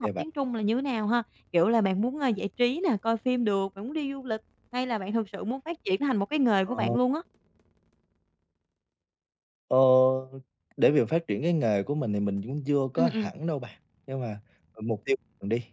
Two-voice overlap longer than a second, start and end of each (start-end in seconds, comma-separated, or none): none